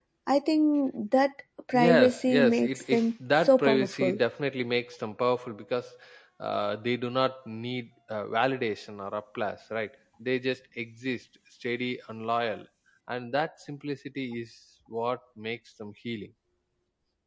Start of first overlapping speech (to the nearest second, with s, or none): 2 s